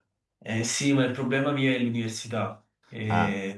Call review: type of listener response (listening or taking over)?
listening